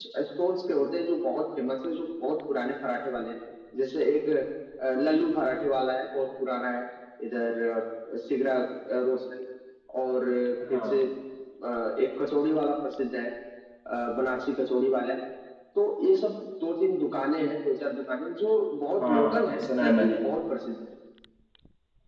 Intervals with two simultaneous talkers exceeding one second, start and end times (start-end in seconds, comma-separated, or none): 19.0-20.2